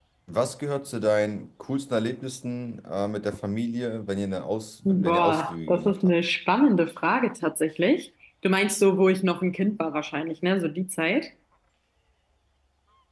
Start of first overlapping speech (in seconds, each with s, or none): 4.8 s